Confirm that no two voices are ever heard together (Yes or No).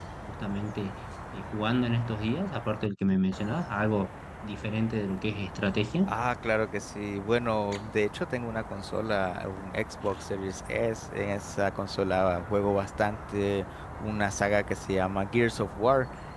Yes